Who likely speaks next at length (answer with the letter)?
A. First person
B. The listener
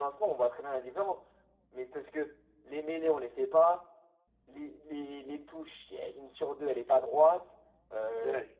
A